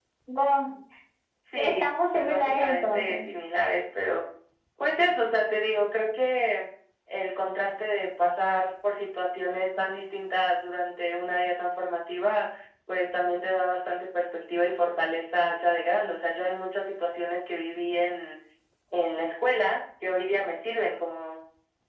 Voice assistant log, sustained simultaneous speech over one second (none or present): present